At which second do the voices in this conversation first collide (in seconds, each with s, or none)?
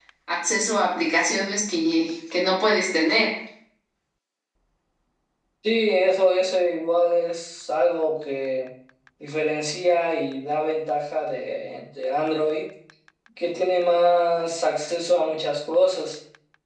none